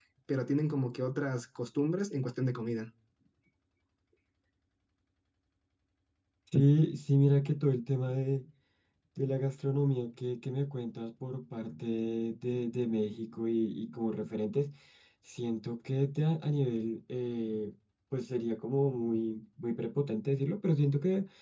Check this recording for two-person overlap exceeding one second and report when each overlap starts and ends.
none

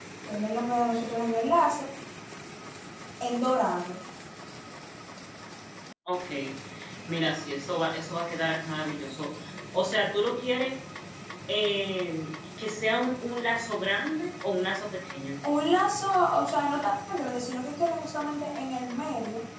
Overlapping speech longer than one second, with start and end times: none

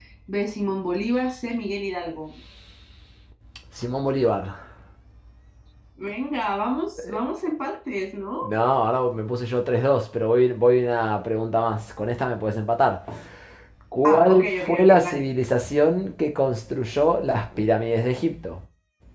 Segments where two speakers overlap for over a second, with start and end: 14.0-15.2

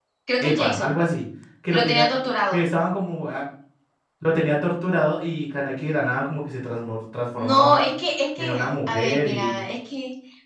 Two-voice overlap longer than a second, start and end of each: 8.4-9.6

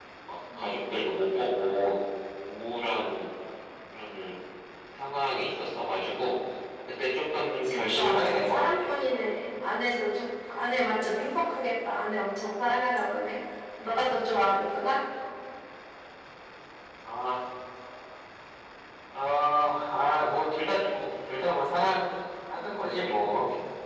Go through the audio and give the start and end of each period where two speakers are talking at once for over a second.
7.6-8.9

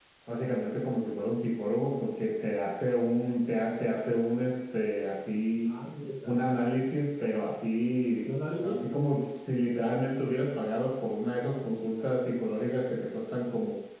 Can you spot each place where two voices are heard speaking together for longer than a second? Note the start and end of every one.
none

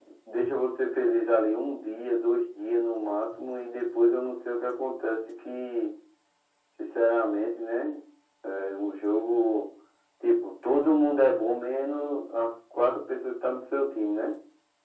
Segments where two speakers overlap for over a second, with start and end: none

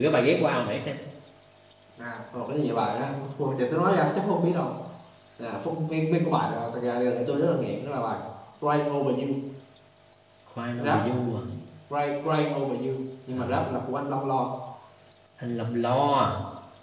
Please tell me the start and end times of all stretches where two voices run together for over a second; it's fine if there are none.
none

